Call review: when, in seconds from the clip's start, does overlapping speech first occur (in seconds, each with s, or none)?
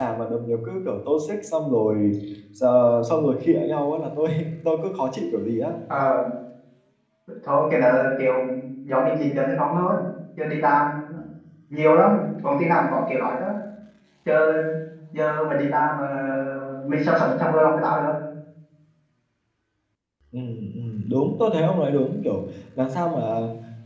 none